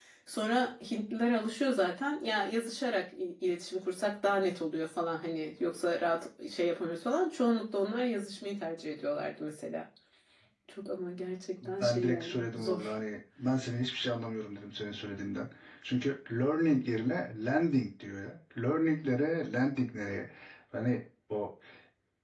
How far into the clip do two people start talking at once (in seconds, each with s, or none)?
11.6 s